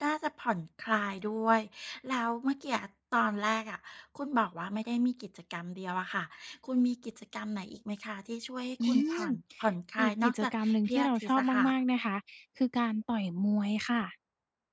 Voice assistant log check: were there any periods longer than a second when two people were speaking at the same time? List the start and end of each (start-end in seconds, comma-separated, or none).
10.0-11.7